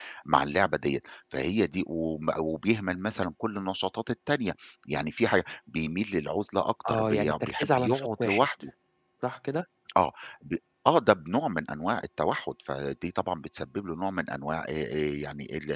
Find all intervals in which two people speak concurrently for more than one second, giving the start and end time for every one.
6.9-8.4

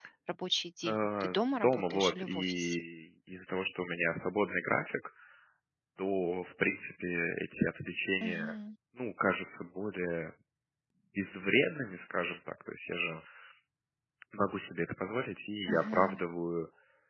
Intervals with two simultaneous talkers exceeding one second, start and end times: 0.8-2.8

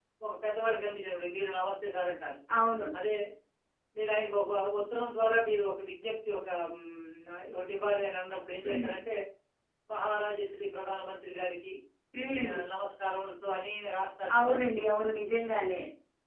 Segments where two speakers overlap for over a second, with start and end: none

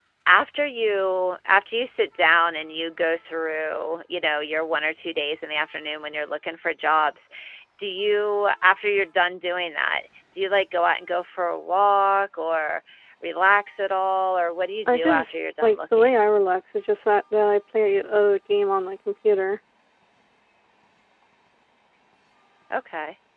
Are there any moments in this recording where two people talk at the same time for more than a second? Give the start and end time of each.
14.9-16.2

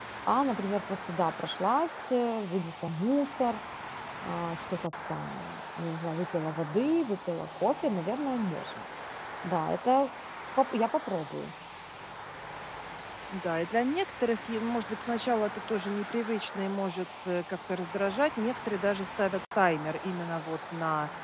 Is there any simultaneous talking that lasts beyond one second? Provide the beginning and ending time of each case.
none

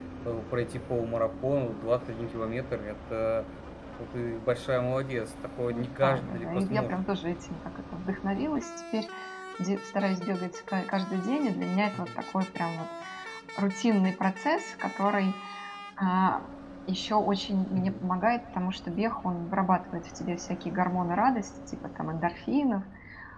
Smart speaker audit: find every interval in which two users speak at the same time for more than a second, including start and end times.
5.7-7.0

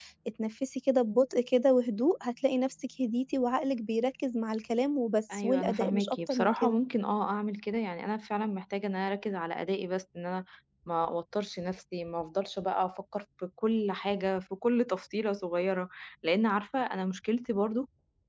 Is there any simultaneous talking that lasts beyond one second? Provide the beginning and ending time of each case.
5.3-6.8

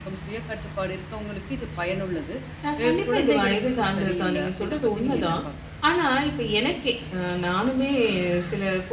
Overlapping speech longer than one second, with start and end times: 2.8-5.4

